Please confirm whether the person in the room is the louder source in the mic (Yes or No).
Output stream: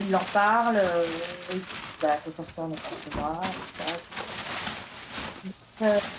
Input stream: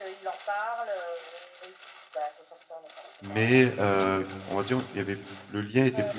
Yes